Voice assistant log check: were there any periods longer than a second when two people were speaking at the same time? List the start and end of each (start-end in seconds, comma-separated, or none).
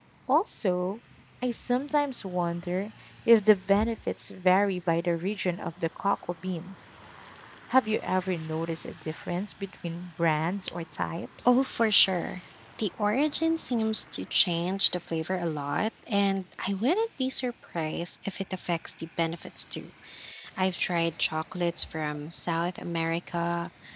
none